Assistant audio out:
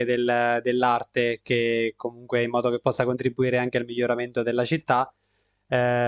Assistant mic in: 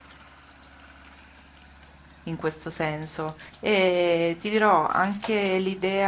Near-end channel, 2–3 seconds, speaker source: user only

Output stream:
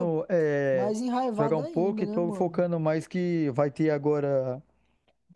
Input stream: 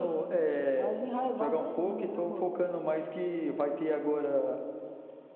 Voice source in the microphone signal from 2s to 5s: echo only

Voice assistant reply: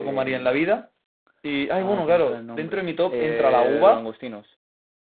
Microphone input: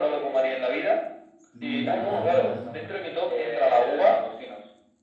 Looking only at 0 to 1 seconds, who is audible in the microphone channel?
echo only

